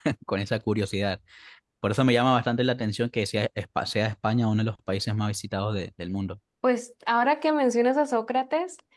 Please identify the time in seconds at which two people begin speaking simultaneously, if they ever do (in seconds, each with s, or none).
none